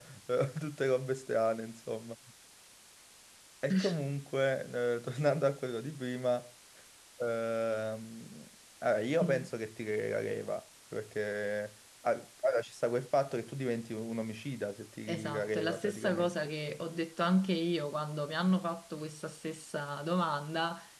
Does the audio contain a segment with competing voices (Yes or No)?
Yes